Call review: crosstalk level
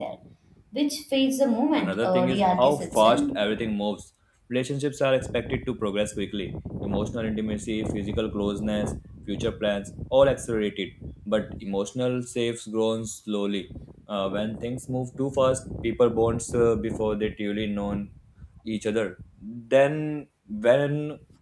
present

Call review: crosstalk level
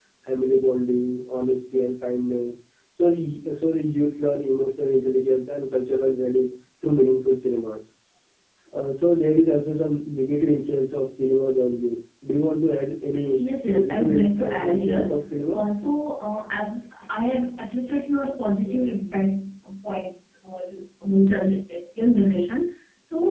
present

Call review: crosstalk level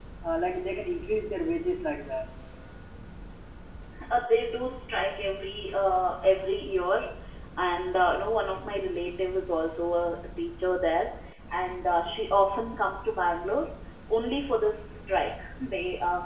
none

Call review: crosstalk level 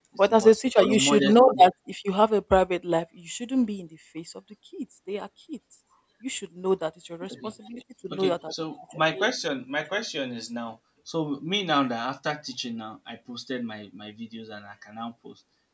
present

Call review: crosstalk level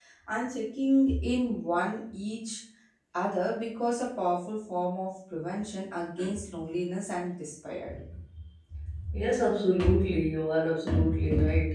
none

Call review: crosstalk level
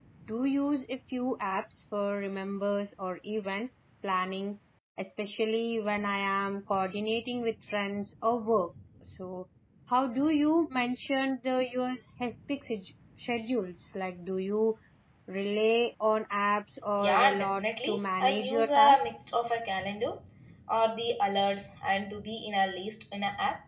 present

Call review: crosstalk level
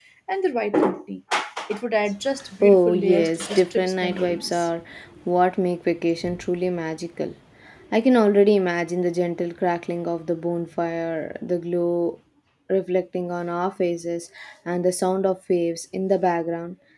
present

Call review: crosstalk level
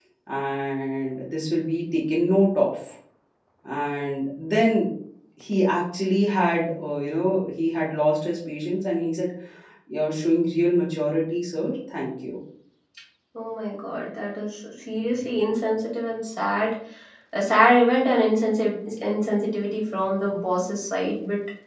none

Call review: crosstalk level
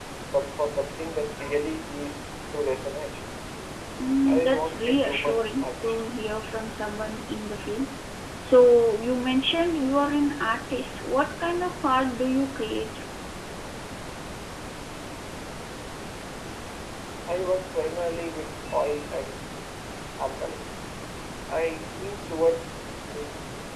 present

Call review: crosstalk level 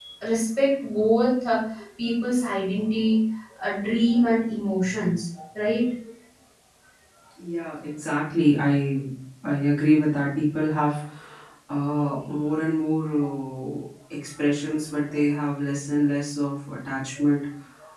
none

